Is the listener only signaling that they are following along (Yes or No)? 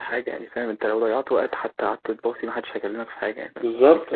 No